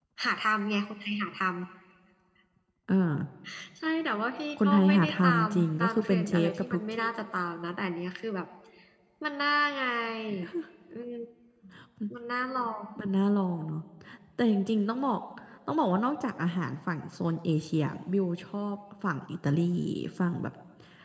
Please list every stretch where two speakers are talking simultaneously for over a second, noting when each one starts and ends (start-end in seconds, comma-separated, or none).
4.6-7.1